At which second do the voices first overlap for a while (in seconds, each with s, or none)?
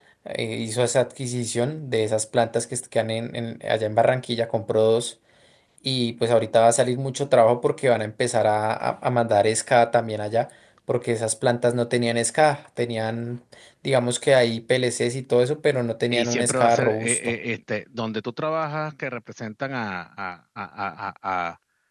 16.1 s